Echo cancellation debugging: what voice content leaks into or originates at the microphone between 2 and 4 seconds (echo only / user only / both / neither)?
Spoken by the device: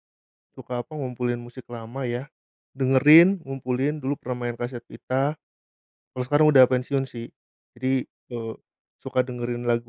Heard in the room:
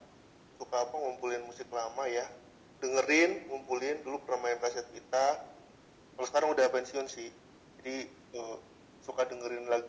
echo only